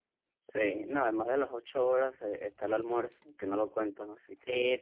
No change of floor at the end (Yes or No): No